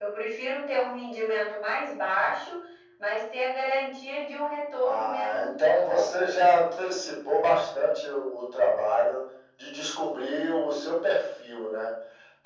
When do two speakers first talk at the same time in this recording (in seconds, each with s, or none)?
4.8 s